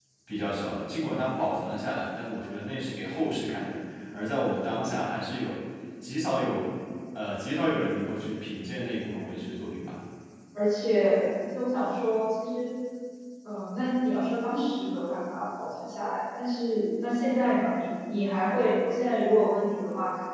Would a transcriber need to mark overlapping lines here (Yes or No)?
No